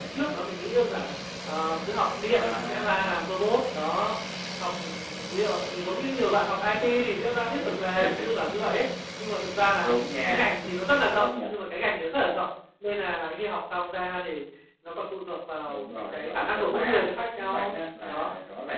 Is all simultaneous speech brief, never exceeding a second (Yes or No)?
No